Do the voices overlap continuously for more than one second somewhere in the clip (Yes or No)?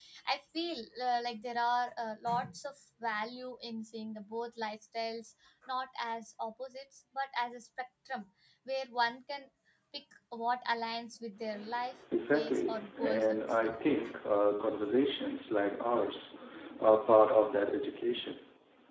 Yes